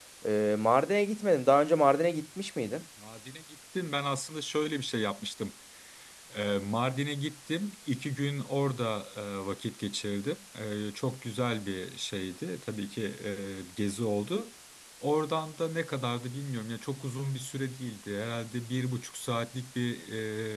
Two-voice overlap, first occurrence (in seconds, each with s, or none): none